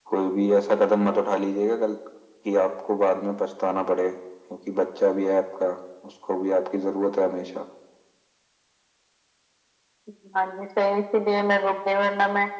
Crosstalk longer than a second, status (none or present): none